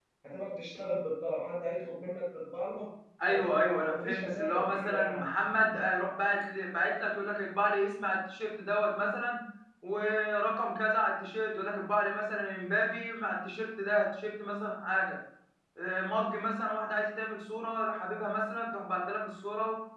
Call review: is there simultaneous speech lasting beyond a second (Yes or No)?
Yes